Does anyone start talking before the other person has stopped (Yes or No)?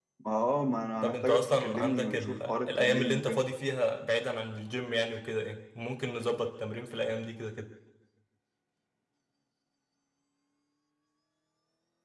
Yes